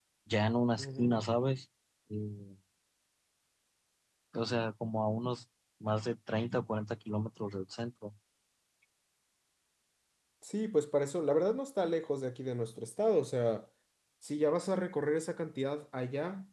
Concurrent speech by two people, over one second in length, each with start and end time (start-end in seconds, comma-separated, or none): none